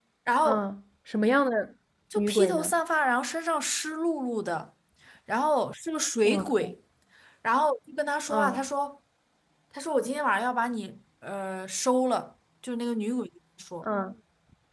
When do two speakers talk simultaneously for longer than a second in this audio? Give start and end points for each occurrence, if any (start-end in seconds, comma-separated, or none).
none